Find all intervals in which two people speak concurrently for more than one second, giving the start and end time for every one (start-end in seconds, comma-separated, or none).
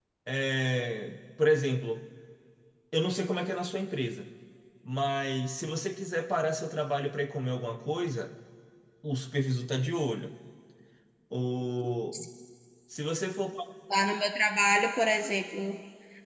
none